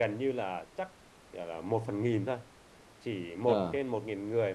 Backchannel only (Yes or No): Yes